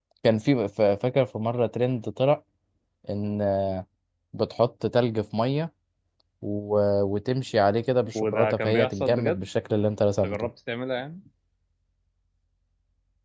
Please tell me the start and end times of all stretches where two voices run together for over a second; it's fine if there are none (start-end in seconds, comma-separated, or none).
8.2-9.4